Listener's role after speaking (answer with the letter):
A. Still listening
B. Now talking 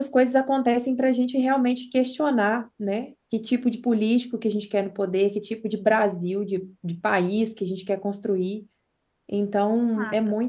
A